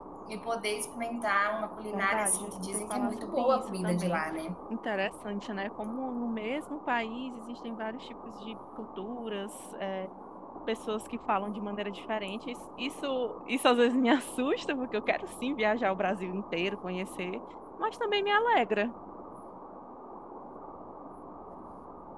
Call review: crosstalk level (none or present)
present